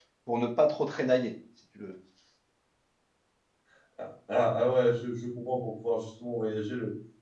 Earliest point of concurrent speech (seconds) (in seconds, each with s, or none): none